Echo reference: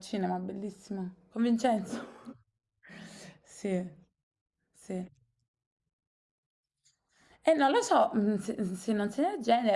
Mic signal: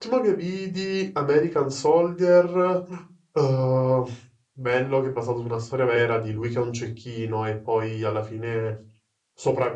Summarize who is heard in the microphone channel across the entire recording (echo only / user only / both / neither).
user only